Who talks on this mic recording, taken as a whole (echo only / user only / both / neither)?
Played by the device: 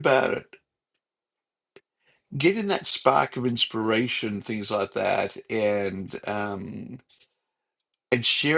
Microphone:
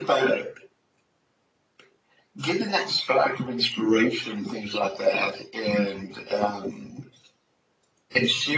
echo only